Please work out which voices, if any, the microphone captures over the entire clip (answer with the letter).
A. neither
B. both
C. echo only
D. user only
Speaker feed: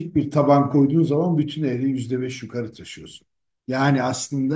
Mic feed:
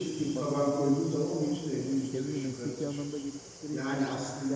B